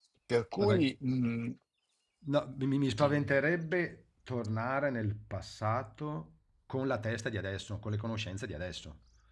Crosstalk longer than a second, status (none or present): none